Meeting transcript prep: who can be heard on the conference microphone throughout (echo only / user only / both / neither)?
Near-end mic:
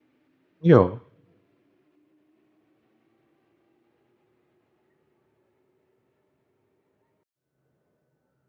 user only